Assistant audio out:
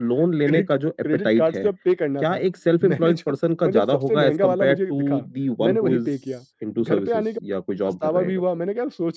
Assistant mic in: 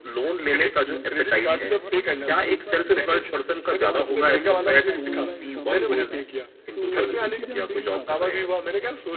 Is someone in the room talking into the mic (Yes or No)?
Yes